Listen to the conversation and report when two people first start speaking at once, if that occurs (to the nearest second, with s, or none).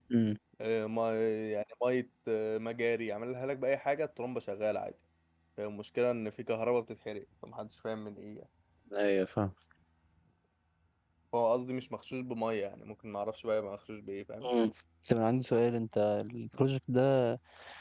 none